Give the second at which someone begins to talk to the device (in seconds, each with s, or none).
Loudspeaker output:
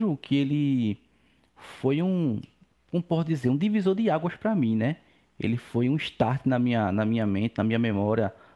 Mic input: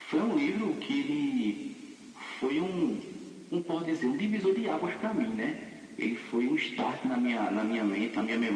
none